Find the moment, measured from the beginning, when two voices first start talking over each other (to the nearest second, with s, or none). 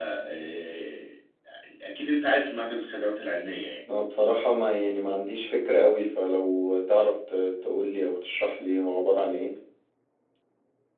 none